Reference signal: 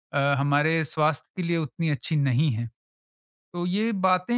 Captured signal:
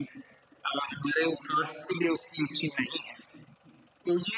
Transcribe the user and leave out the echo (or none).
none